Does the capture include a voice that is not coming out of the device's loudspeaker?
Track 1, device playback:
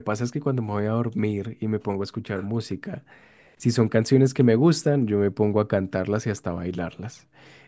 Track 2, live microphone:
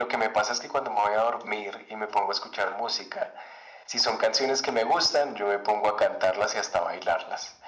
No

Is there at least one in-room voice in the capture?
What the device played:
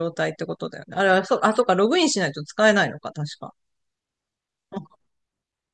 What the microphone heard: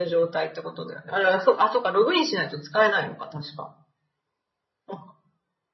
No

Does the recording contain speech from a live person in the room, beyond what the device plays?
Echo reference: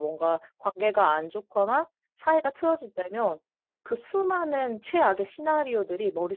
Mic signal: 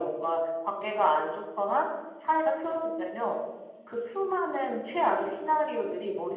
No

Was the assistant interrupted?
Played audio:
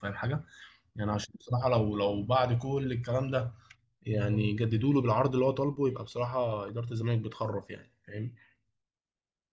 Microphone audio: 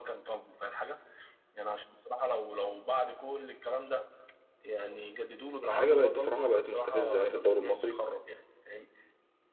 Yes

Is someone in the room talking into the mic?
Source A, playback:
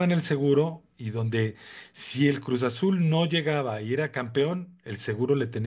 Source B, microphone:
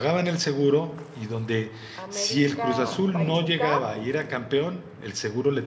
Yes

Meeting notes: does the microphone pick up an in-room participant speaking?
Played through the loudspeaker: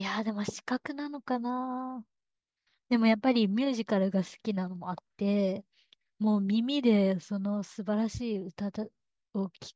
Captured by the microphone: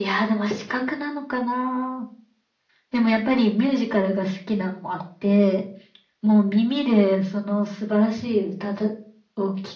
No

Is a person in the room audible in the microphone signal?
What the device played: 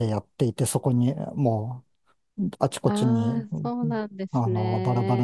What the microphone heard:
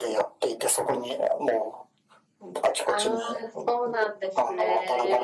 No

